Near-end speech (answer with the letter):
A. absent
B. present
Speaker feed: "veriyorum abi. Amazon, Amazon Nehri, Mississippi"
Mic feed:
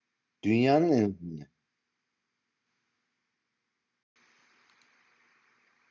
B